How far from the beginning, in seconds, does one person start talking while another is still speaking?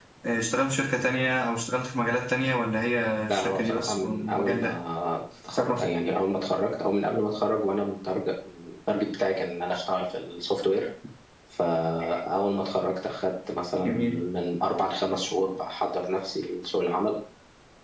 3.3 s

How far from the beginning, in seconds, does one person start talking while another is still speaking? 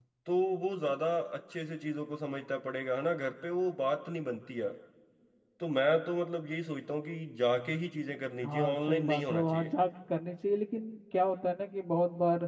8.4 s

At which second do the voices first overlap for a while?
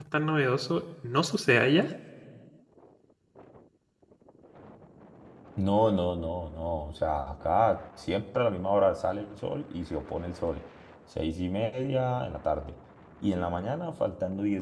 none

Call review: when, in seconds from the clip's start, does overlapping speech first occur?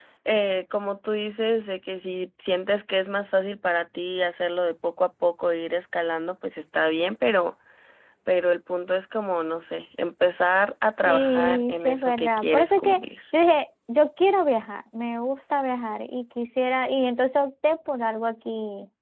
11.1 s

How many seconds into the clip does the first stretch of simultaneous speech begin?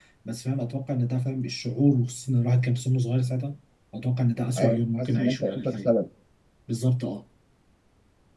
4.6 s

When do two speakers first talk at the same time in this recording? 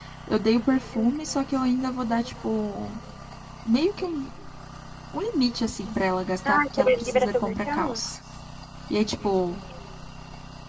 6.5 s

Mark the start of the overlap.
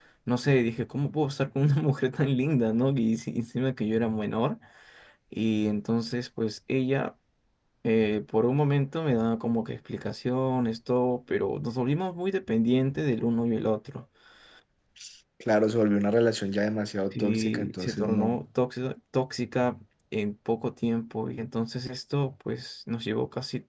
17.1 s

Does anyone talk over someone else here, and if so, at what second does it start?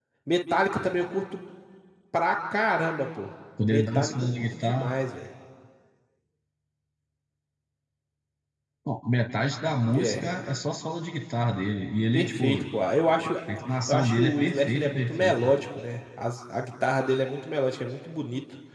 3.6 s

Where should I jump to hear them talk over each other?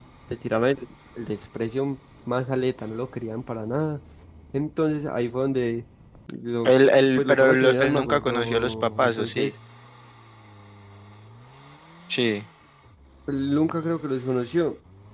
6.7 s

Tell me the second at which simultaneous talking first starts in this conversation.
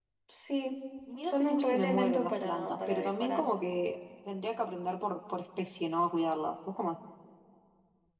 1.2 s

